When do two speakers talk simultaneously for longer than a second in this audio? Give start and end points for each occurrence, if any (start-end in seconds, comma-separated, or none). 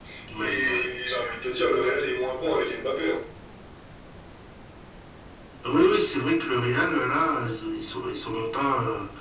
none